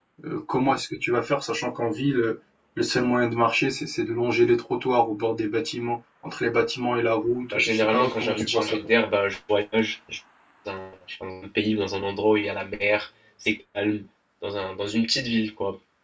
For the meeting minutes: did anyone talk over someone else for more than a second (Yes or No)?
Yes